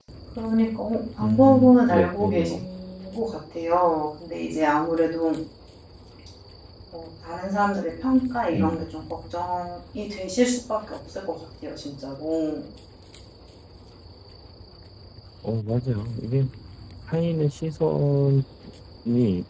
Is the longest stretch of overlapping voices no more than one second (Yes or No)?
No